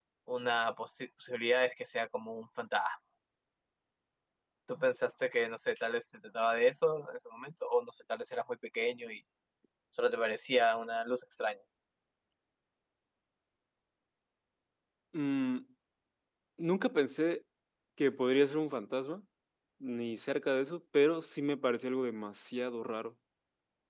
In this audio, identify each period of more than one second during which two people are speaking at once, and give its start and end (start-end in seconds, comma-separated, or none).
none